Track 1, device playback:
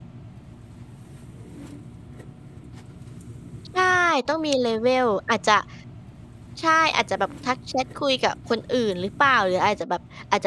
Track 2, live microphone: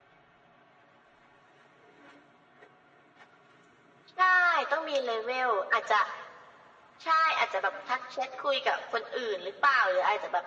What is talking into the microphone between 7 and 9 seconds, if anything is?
echo only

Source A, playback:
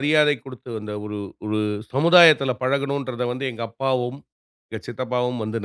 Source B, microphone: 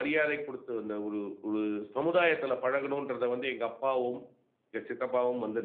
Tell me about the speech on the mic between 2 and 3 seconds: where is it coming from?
echo only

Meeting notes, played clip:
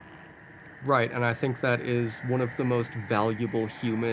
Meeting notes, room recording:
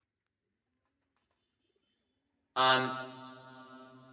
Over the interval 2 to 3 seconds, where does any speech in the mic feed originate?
user only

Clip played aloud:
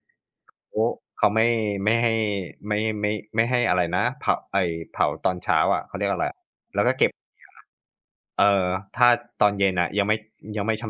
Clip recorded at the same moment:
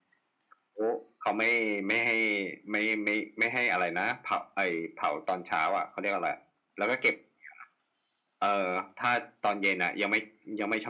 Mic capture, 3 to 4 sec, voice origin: echo only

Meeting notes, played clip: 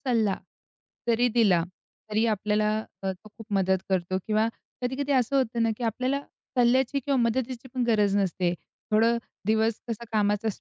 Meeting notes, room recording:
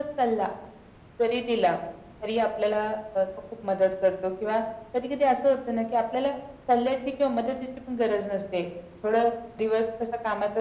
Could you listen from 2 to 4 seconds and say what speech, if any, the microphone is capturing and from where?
echo only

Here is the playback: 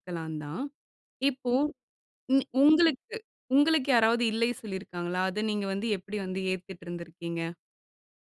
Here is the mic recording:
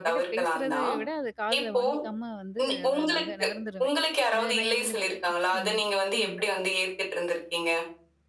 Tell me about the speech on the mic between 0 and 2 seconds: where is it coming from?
both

